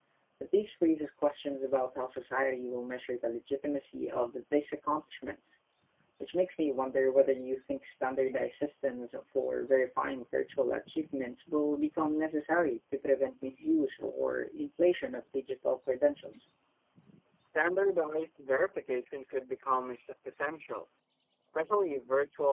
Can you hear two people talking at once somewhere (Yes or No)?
No